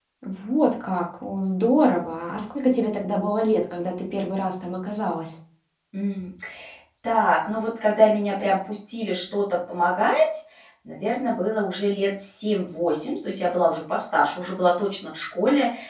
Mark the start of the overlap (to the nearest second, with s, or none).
none